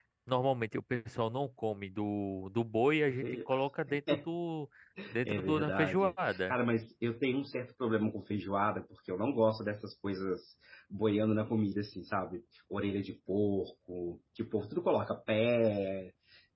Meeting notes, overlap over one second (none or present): present